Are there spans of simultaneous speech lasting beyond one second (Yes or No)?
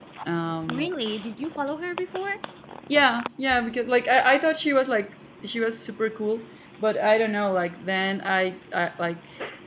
No